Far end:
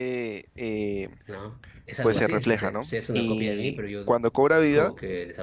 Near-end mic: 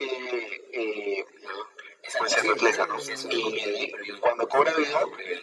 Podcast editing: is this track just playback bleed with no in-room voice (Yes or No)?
No